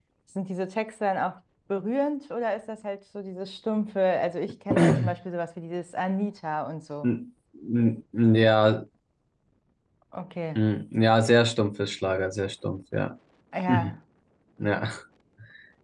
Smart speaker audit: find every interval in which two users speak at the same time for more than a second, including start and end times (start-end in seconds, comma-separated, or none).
none